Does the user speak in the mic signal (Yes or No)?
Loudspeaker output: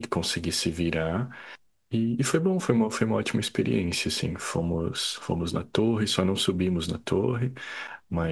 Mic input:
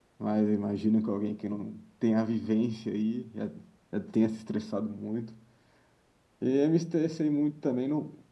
Yes